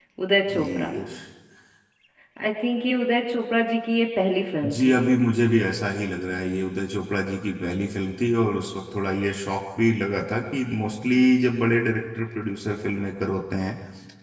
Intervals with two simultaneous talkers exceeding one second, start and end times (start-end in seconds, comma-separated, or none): none